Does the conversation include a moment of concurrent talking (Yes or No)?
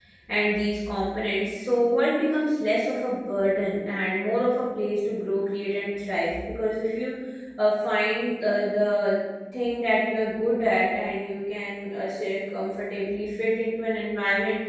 No